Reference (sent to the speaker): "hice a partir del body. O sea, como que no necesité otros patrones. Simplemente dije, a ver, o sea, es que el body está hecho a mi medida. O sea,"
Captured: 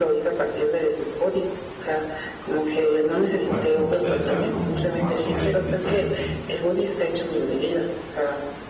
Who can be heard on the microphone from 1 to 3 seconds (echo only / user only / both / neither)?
echo only